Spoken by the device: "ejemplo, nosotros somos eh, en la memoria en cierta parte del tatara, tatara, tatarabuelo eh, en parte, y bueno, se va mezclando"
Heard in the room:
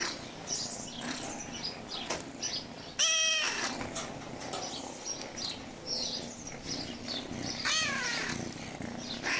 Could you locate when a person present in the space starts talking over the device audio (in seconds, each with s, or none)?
none